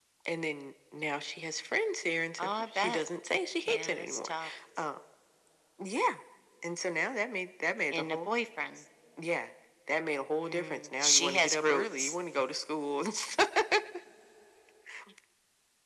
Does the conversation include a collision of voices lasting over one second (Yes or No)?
Yes